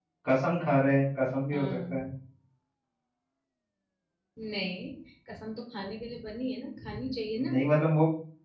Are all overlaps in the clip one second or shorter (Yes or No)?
Yes